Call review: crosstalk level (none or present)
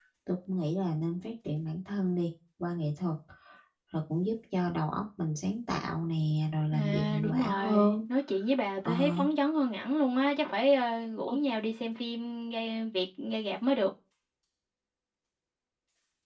present